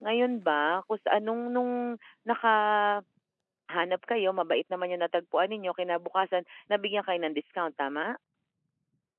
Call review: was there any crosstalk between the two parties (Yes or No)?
No